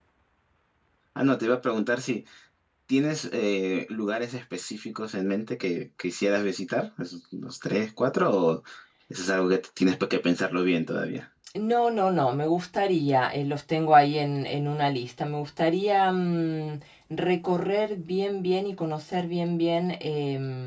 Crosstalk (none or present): none